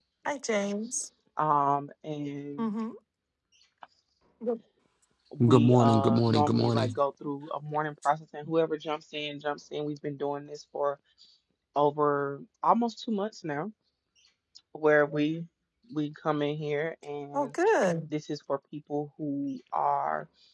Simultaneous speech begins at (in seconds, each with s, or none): 5.5 s